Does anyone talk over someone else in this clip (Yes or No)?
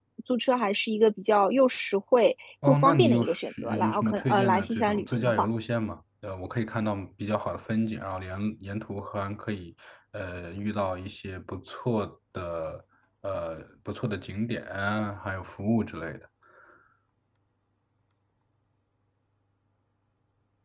Yes